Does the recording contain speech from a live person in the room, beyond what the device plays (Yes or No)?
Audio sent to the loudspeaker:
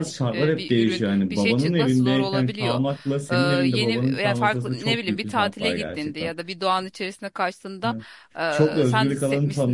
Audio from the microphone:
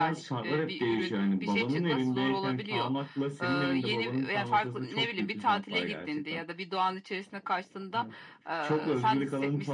No